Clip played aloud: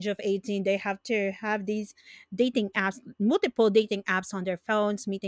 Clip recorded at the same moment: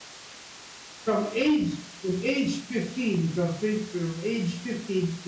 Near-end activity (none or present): present